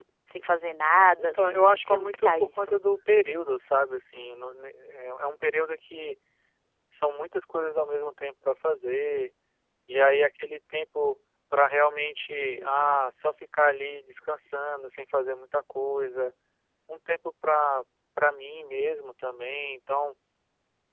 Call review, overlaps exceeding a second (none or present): present